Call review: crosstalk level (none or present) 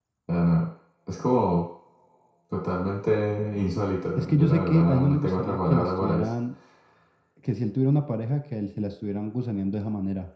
present